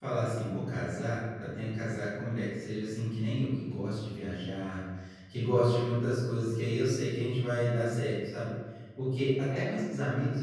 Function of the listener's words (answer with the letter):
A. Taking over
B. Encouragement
B